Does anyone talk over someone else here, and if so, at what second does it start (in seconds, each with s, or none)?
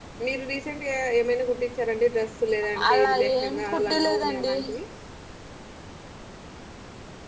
2.8 s